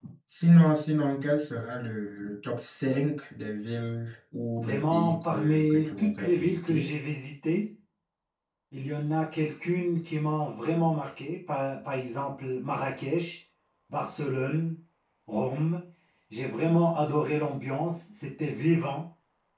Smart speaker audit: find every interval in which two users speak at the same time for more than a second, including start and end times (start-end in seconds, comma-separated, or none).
4.6-6.9